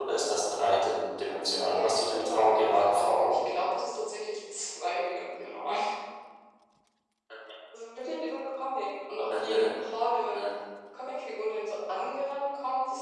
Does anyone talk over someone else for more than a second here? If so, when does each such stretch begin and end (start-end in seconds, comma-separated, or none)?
1.7-3.5